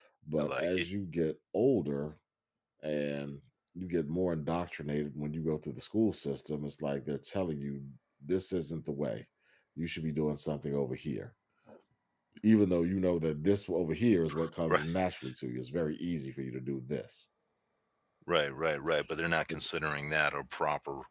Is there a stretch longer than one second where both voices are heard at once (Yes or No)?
No